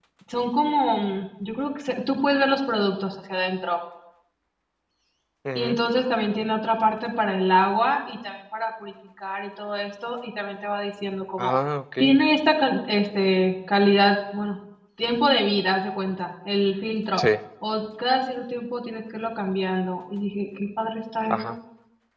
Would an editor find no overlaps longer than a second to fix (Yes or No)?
Yes